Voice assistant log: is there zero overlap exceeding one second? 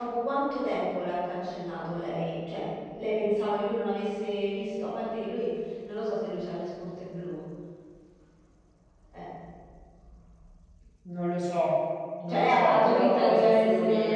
No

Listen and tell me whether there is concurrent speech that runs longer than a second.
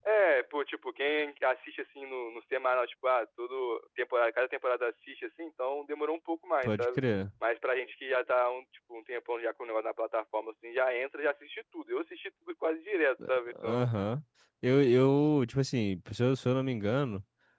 No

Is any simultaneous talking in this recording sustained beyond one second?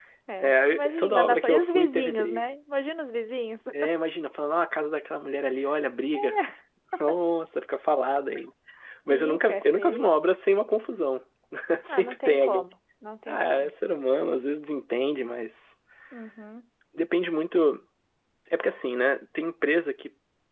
Yes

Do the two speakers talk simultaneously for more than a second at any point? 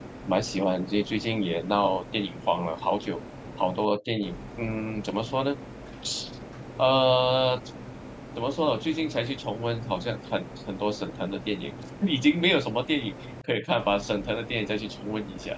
No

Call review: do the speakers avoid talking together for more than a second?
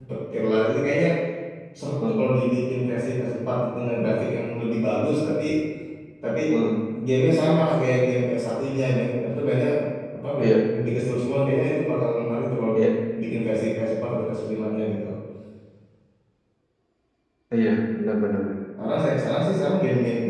Yes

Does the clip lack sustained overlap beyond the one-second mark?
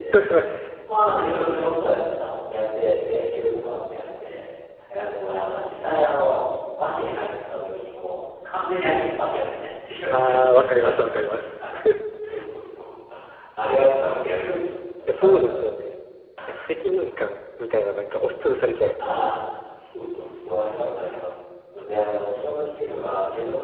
Yes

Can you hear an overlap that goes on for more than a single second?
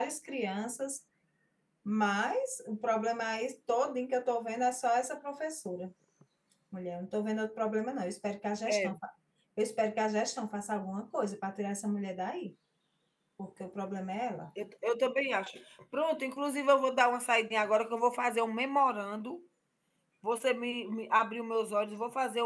No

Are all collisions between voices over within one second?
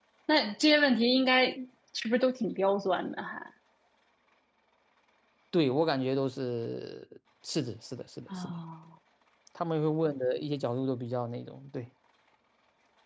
Yes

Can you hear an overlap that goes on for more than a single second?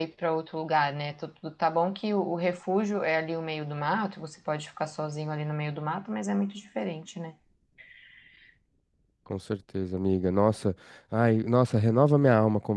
No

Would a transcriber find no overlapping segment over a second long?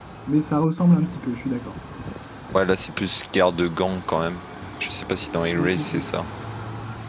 Yes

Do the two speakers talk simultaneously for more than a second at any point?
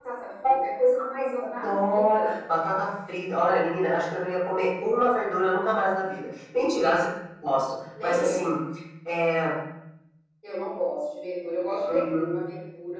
Yes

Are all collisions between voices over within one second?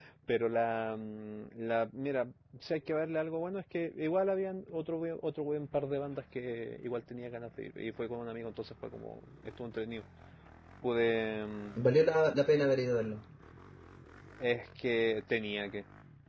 Yes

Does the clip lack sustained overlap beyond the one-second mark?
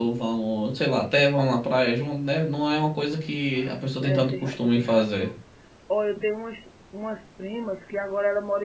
No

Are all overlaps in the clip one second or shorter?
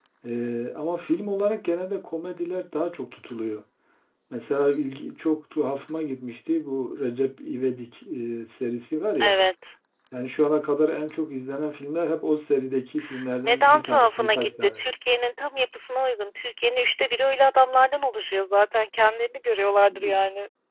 No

